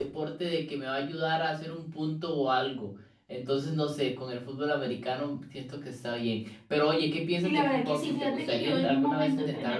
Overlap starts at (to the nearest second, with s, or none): 7 s